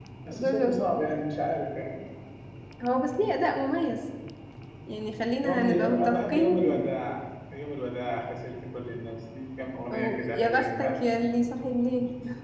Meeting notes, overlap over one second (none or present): present